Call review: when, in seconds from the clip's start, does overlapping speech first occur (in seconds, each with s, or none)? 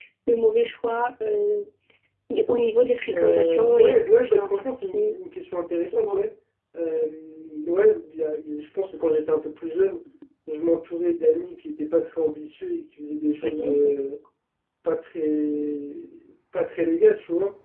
3.1 s